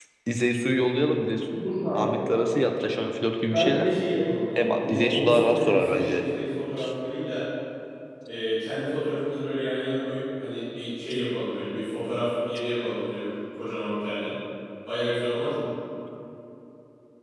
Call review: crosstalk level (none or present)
present